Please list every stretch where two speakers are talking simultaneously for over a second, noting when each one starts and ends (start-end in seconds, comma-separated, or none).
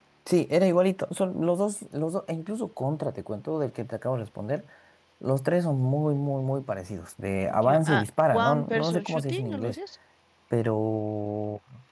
7.6-9.8